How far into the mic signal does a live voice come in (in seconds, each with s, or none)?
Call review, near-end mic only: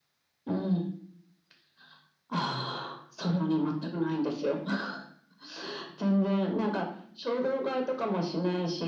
none